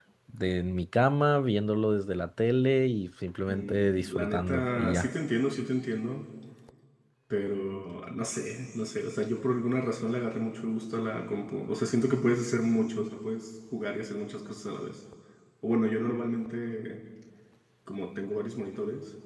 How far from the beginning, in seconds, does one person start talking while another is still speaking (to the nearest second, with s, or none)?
3 s